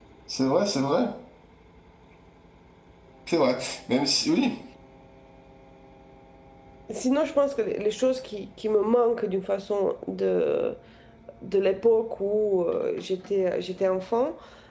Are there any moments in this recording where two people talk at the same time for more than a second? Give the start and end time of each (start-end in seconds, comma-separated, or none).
none